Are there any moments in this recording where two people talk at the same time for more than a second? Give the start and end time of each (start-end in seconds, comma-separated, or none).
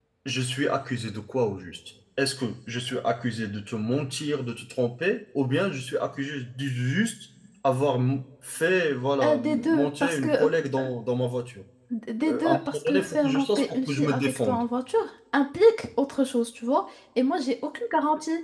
9.2-10.5, 12.3-14.6